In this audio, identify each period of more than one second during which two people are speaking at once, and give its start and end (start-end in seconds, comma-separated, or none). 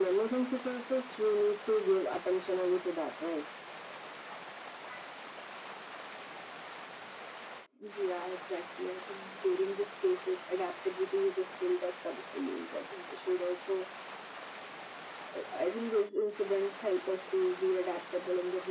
none